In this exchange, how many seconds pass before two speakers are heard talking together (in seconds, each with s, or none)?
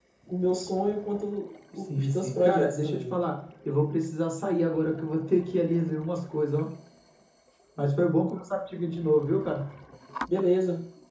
1.7 s